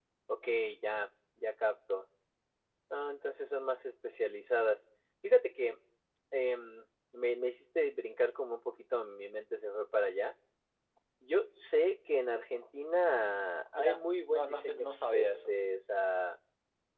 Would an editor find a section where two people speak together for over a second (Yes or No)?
Yes